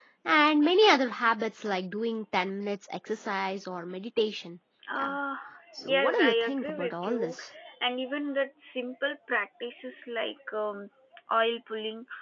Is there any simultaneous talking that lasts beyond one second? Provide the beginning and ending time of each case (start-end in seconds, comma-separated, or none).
5.9-7.4